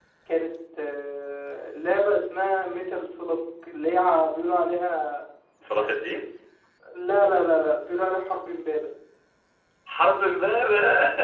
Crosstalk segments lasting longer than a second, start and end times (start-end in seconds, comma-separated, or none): none